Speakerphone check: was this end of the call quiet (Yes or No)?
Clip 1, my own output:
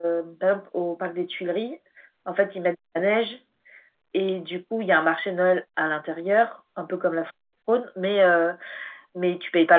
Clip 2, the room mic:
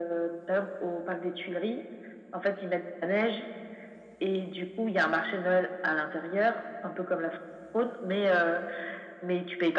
Yes